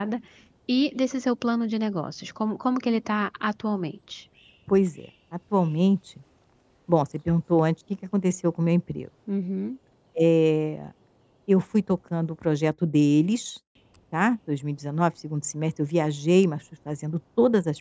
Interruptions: none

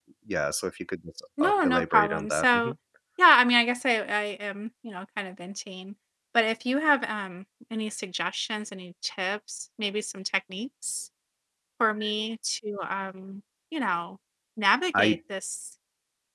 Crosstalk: present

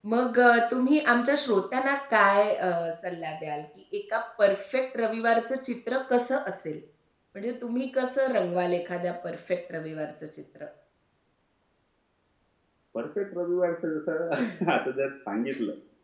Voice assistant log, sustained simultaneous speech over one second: none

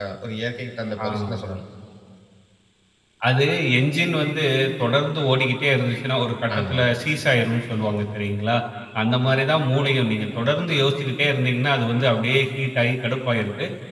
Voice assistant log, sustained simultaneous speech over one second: none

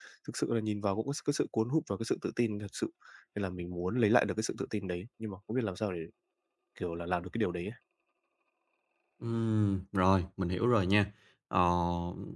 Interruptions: none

